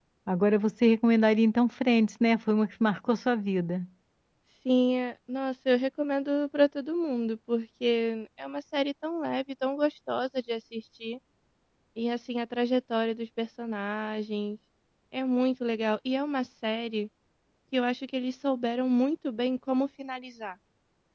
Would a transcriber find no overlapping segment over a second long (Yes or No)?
Yes